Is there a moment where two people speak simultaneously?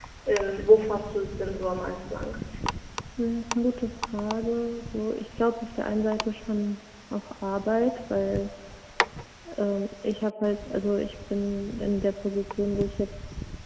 No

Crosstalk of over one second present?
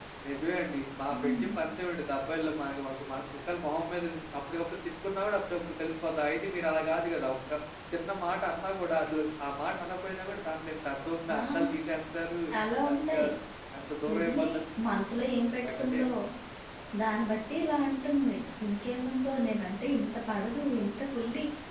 No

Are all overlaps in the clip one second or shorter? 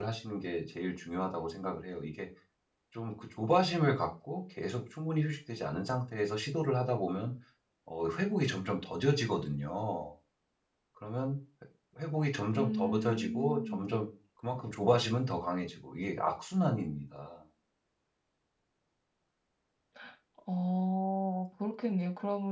No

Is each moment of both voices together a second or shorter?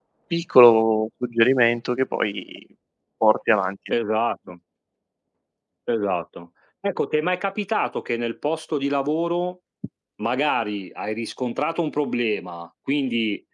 Yes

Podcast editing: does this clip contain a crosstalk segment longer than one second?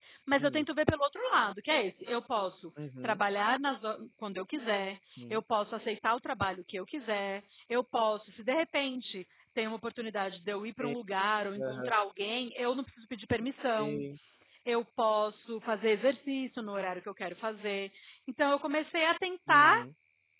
No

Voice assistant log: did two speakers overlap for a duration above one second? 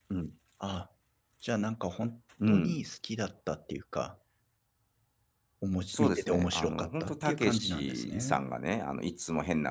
Yes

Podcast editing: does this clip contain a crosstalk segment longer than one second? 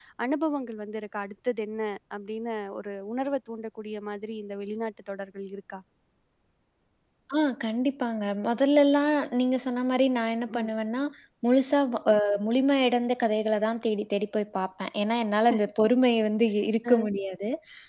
No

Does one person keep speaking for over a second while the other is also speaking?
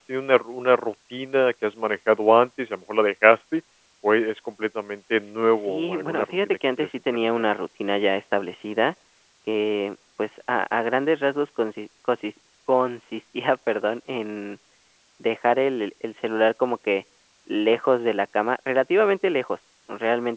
Yes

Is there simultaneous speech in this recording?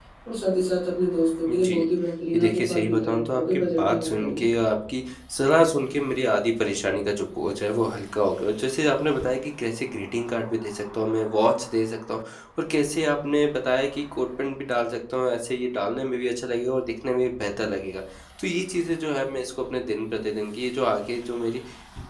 Yes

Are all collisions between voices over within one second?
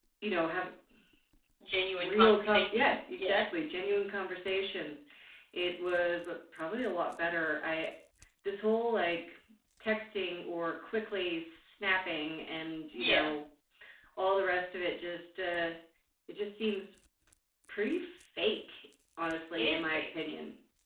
No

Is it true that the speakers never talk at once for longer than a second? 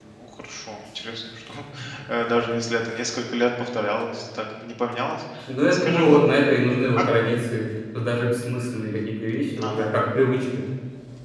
Yes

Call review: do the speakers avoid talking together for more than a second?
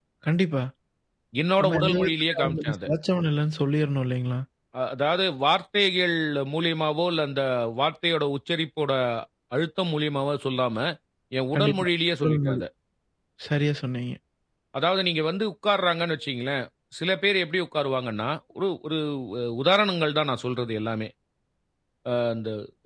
No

